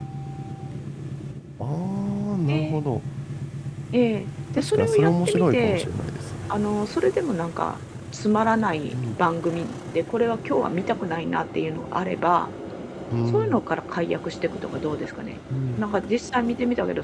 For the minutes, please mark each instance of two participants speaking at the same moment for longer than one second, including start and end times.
4.5-5.9

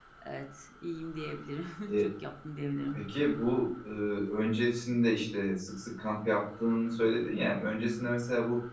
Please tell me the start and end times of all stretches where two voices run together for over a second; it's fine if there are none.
none

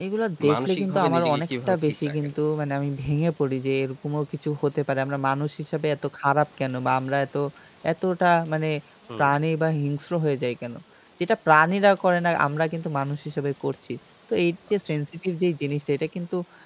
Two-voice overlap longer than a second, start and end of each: 0.5-2.3

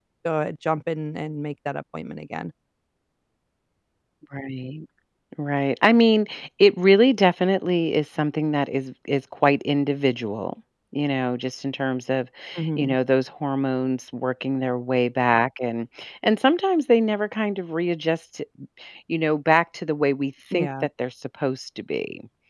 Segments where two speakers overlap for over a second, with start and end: none

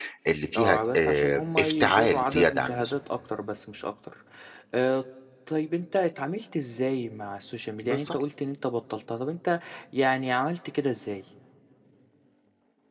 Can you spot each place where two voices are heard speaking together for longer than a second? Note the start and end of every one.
0.6-2.9

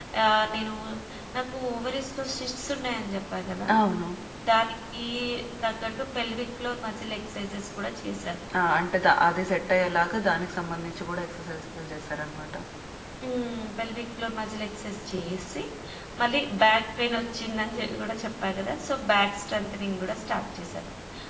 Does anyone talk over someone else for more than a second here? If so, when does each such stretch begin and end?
none

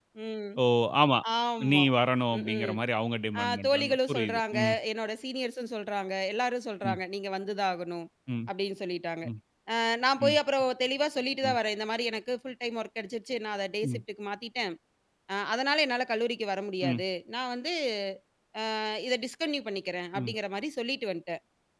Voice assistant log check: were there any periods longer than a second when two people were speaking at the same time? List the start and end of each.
3.4-4.7

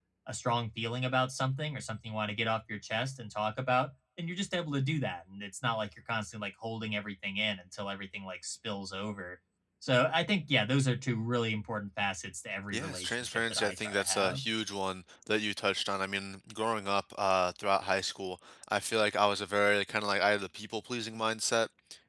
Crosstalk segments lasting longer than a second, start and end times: 12.7-14.4

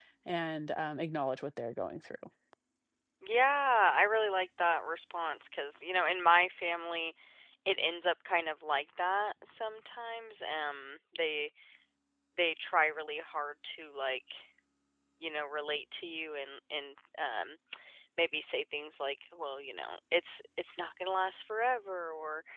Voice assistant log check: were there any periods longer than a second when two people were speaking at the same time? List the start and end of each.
none

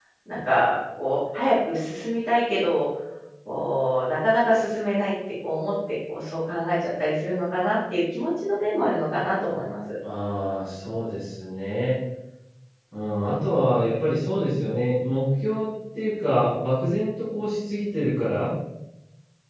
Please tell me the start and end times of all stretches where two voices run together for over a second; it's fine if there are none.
none

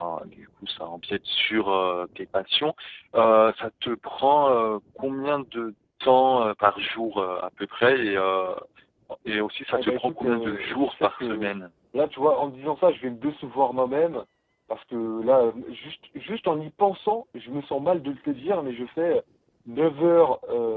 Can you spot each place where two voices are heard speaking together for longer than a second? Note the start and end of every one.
9.8-11.5

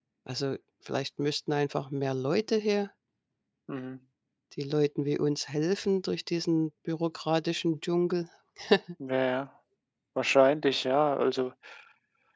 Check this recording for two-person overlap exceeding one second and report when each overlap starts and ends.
none

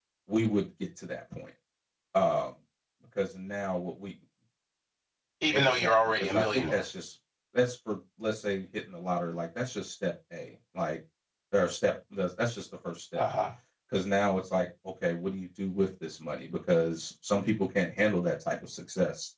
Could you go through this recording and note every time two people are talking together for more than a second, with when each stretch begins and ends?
5.5-6.8

